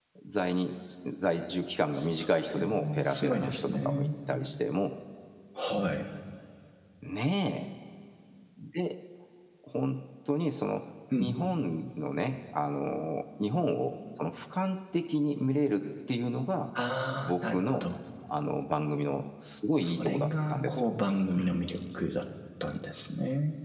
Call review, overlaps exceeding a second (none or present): present